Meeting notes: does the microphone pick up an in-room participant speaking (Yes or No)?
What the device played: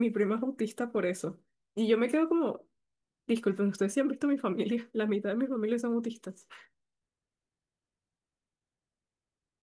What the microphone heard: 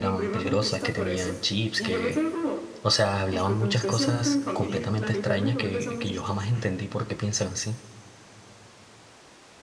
Yes